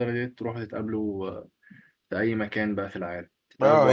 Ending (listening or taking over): taking over